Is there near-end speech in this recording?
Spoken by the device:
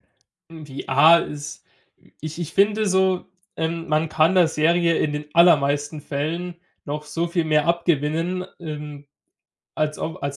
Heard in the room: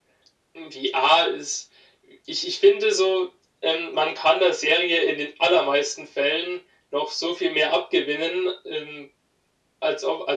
No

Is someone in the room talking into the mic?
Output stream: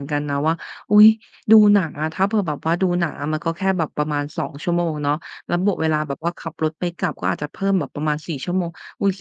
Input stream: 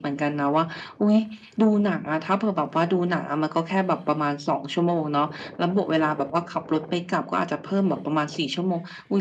No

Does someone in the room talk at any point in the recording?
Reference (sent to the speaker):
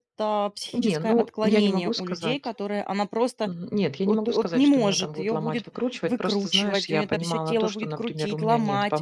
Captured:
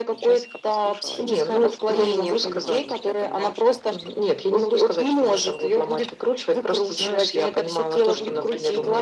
Yes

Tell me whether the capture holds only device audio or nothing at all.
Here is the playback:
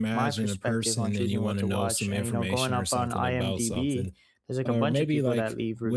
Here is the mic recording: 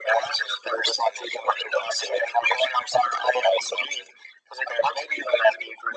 Yes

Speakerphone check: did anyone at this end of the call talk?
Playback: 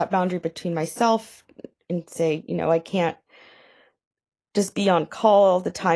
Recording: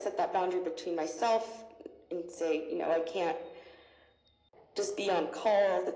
No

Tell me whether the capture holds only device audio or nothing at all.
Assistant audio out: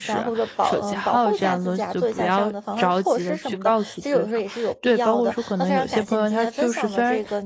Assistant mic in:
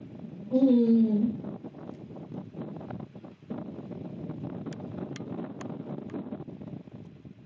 No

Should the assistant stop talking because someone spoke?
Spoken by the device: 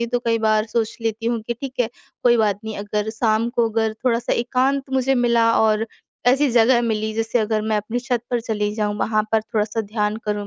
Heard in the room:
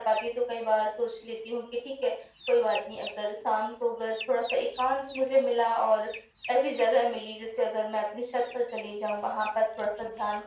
No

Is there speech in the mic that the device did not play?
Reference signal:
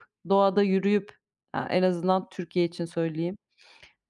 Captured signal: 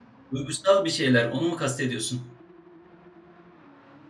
Yes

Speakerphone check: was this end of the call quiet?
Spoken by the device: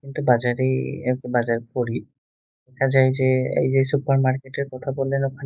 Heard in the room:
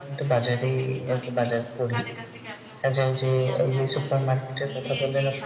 No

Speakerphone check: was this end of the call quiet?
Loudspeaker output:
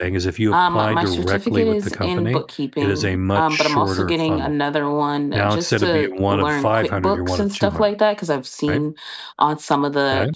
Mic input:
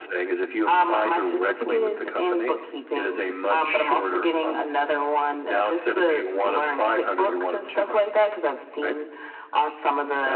Yes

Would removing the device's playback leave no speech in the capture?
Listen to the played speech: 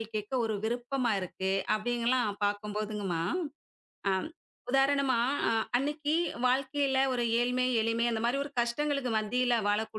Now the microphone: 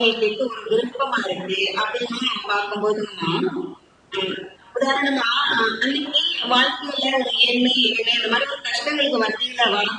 Yes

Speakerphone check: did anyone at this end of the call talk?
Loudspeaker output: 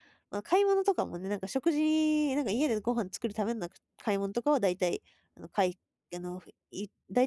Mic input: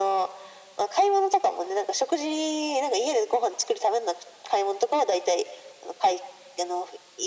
No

